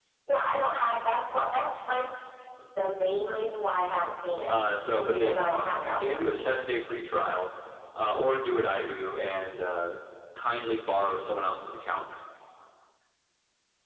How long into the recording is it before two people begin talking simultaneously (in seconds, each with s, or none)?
5.0 s